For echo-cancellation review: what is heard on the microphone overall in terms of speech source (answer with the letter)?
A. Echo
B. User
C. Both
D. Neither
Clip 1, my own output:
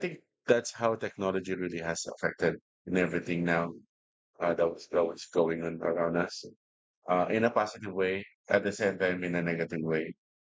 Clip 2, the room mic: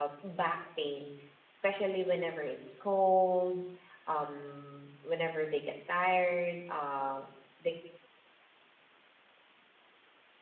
B